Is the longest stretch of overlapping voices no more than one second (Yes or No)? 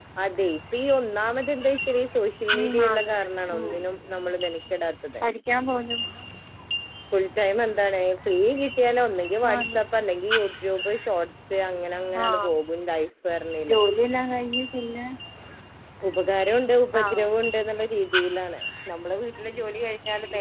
Yes